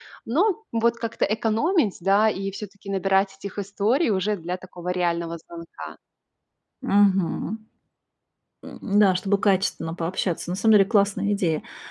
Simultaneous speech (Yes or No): No